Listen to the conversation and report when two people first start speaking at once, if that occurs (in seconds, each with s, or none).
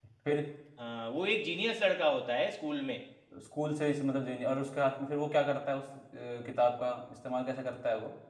none